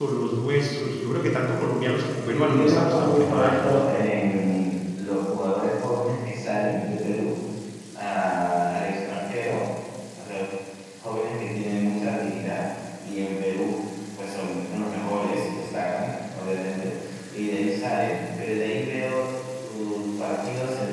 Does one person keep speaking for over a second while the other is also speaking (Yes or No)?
Yes